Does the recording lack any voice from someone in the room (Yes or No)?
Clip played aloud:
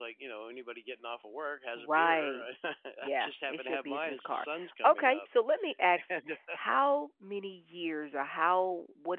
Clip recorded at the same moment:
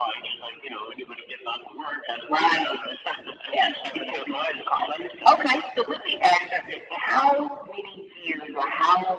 Yes